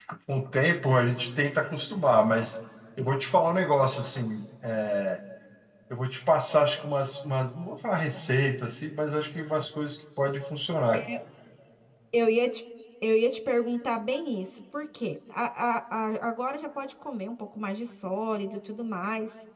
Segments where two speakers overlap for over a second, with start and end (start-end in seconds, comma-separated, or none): none